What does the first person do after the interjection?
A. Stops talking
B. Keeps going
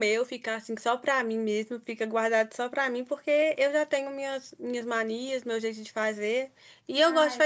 B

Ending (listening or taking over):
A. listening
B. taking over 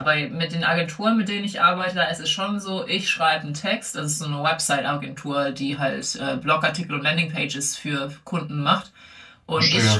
A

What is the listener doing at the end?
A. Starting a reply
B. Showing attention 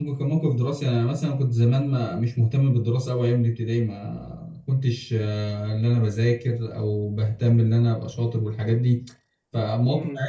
B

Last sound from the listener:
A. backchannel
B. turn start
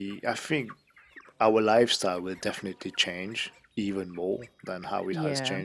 A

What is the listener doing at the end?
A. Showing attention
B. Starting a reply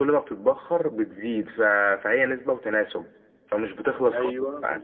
B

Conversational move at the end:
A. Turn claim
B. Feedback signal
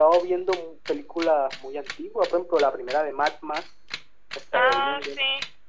A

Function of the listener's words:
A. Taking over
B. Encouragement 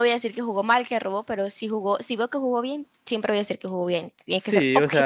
A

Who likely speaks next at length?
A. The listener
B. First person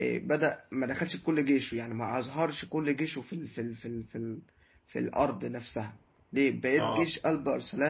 B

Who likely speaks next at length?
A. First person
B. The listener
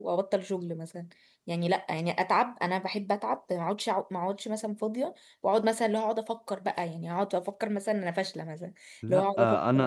B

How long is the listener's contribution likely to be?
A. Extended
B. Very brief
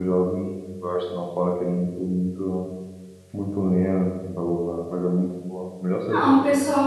A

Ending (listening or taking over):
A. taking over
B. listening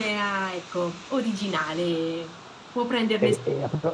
A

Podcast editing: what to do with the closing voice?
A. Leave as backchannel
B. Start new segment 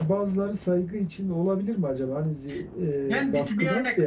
B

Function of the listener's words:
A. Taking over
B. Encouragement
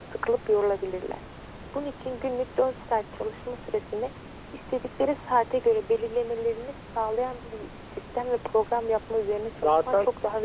A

